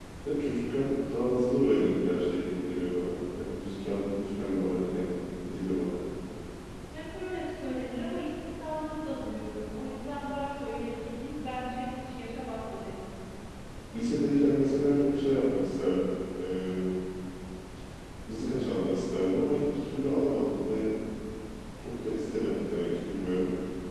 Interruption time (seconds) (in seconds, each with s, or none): none